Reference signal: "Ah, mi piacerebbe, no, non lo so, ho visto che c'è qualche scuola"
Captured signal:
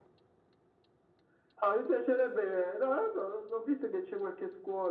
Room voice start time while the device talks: none

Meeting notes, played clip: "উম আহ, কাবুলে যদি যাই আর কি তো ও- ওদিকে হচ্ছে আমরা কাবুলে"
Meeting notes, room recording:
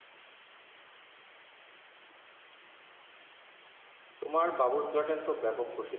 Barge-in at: 4.2 s

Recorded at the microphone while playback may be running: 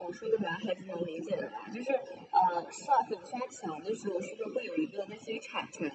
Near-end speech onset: none

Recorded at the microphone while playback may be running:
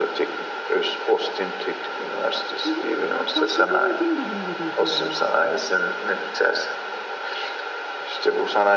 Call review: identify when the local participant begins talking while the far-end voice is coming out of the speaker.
2.6 s

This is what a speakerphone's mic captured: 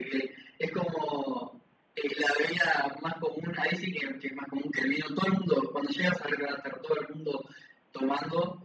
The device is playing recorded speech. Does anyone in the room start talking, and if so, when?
none

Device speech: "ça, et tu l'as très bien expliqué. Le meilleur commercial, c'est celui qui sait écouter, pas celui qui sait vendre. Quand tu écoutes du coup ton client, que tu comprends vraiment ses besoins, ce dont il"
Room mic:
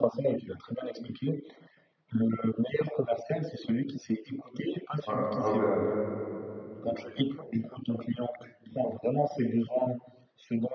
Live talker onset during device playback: 5.1 s

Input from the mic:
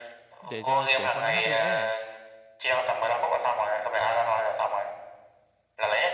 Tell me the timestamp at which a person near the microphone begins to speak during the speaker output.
0.4 s

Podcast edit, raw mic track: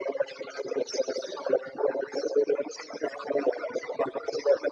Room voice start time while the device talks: none

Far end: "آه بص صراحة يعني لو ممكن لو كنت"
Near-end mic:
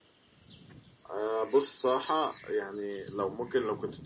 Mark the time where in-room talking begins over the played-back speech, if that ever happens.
none

